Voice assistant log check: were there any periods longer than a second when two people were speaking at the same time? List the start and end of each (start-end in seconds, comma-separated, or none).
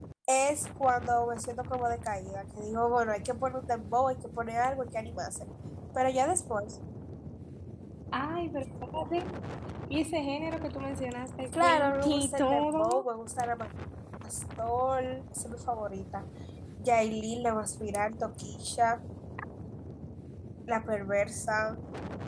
11.6-13.1